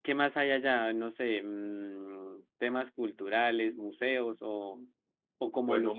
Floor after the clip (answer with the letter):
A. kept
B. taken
A